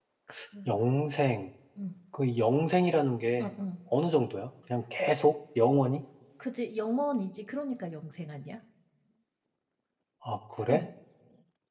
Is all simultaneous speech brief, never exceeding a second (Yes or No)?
Yes